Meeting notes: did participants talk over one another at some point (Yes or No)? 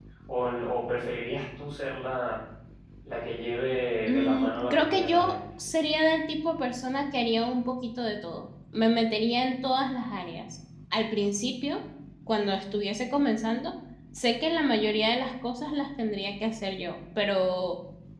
Yes